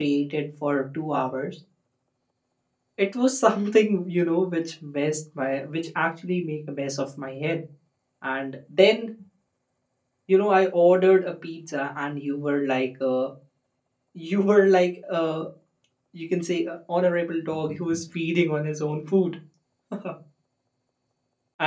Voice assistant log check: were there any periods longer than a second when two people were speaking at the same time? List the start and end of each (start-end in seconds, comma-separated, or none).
none